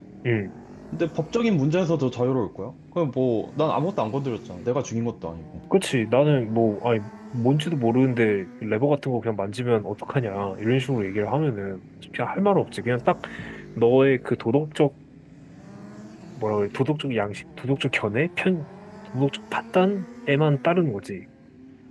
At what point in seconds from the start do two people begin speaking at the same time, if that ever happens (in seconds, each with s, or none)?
none